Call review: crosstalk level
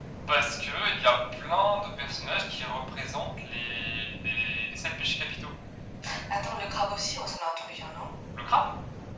none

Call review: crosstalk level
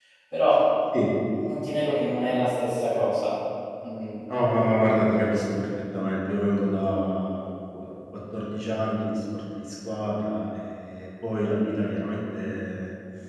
none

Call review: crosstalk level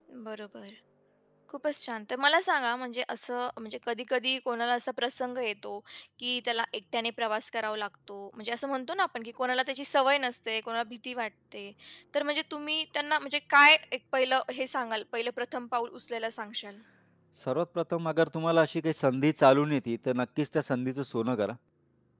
none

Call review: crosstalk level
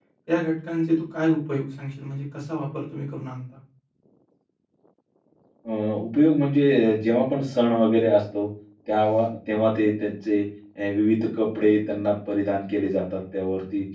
none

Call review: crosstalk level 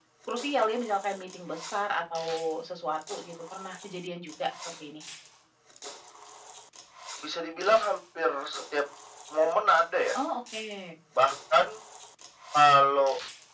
none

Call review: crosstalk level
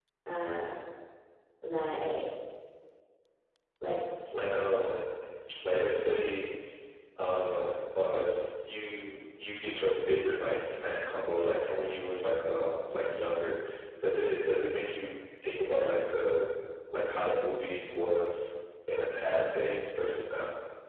none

